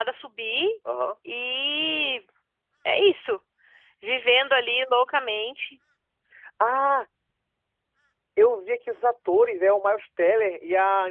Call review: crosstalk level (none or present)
none